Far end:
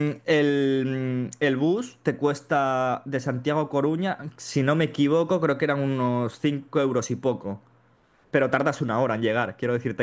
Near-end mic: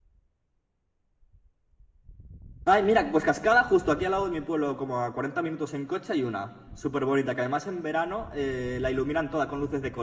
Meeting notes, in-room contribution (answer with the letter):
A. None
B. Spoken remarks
B